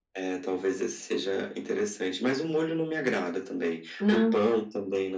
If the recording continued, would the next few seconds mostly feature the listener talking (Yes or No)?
No